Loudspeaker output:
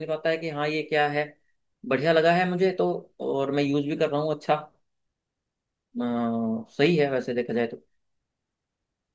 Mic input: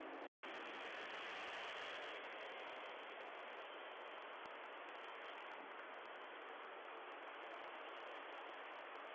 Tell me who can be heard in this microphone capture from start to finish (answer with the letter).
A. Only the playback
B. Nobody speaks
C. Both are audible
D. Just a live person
B